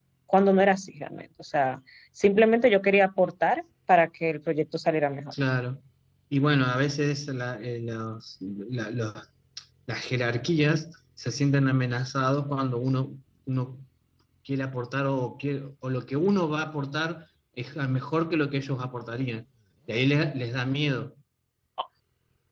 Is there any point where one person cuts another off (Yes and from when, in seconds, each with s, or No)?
No